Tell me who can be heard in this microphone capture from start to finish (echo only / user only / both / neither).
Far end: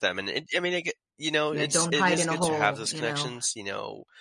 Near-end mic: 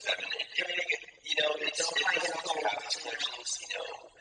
echo only